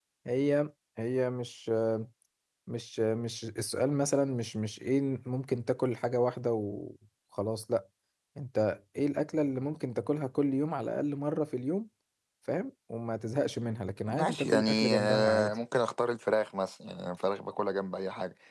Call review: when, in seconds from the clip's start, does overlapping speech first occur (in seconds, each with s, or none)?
14.1 s